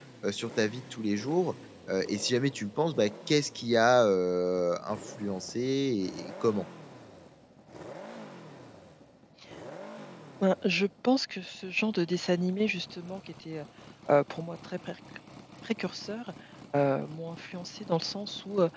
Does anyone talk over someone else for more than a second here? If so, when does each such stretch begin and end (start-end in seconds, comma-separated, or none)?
none